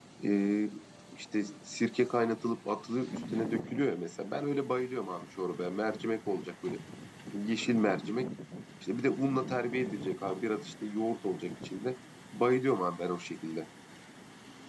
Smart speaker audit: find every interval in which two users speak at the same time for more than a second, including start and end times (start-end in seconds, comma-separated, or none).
none